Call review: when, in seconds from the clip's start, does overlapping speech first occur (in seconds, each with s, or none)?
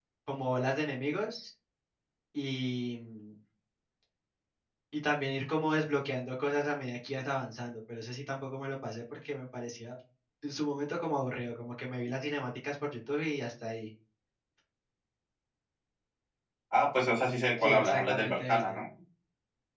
17.6 s